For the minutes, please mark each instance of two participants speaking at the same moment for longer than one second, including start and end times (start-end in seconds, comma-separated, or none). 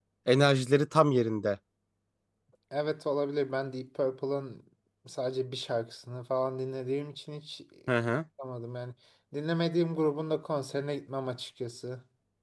none